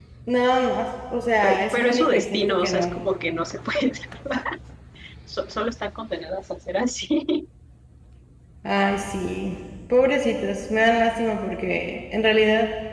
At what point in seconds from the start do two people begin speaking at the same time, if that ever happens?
1.4 s

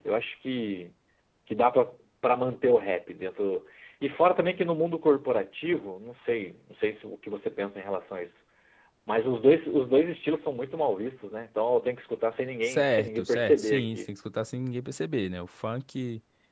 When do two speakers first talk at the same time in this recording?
12.6 s

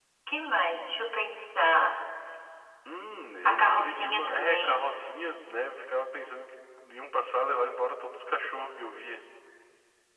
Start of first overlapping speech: 3.5 s

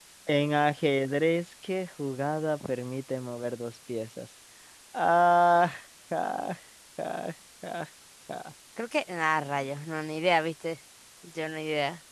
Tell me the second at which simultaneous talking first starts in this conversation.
none

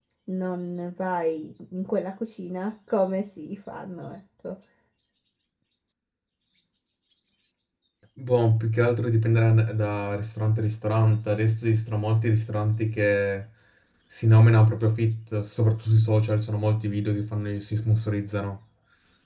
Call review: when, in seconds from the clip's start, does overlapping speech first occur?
none

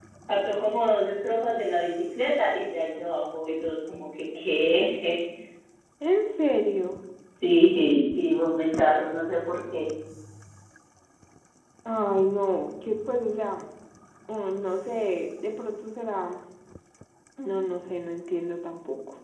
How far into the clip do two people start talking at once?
none

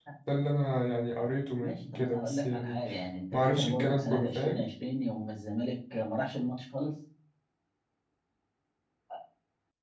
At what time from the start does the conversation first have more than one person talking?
1.6 s

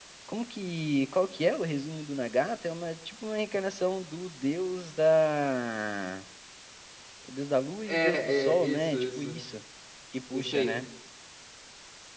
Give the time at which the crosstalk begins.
7.9 s

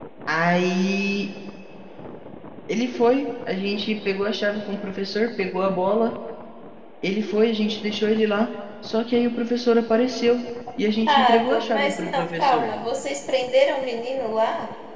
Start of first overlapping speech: 11.0 s

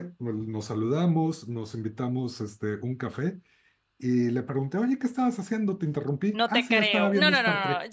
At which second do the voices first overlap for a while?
6.3 s

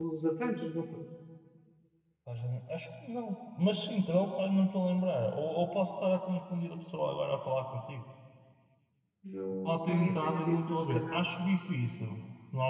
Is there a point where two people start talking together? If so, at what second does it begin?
9.6 s

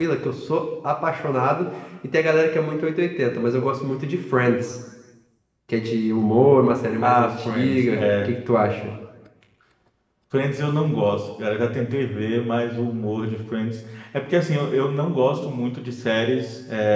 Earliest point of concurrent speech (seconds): 7.0 s

